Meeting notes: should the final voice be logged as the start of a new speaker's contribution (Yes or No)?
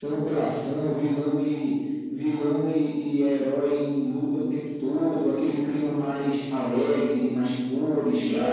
Yes